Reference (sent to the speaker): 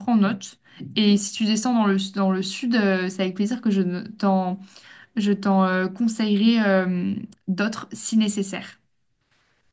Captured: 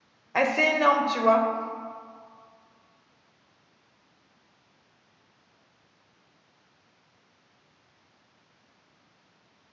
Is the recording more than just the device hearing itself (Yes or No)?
Yes